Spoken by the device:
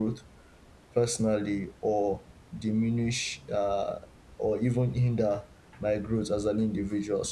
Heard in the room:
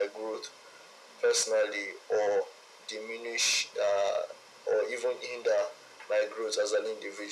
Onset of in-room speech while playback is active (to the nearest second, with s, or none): none